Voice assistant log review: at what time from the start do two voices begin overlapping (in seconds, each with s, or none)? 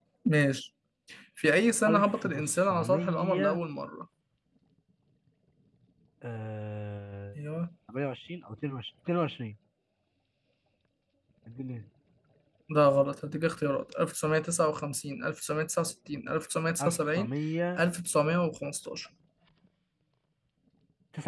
1.9 s